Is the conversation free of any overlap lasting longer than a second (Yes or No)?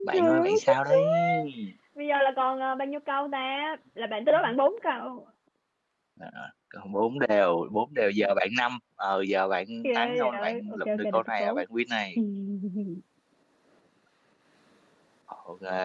No